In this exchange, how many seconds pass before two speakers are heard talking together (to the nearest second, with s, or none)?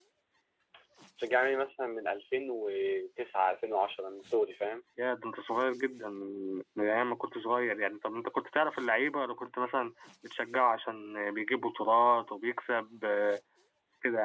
none